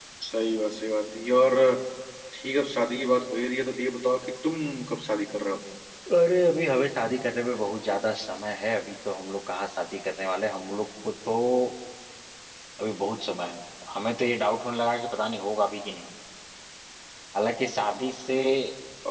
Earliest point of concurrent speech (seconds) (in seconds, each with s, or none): none